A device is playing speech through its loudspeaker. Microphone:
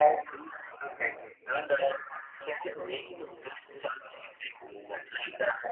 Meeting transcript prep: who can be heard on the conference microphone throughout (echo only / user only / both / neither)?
echo only